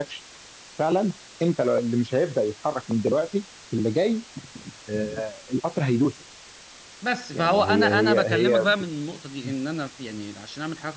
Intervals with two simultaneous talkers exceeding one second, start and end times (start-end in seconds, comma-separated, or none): 7.3-8.7